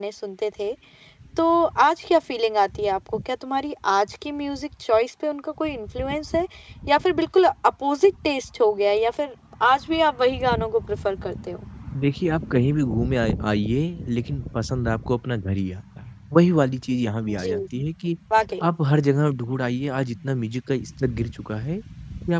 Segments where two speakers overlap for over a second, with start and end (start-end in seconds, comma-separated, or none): none